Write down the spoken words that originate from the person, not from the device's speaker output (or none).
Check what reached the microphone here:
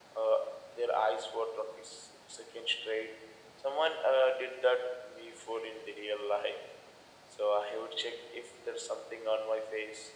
none